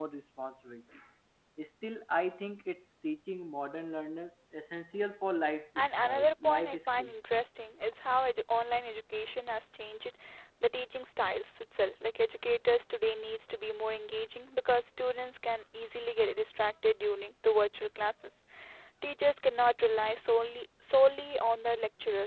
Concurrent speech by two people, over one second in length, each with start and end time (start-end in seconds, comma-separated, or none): 5.8-7.1